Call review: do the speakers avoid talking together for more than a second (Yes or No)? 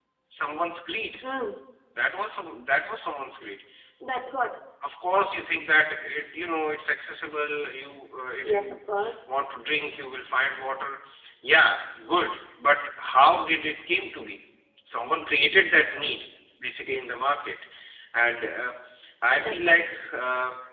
Yes